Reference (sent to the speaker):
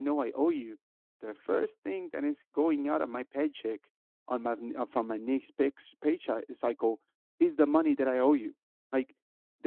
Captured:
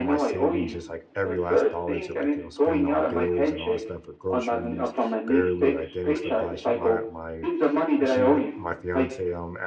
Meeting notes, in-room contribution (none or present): present